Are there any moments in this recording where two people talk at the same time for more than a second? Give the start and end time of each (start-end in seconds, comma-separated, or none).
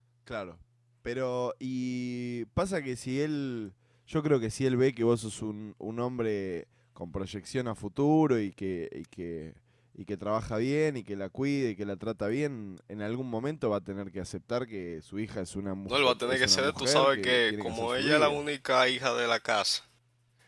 15.9-18.4